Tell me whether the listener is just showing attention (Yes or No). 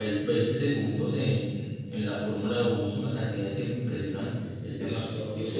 No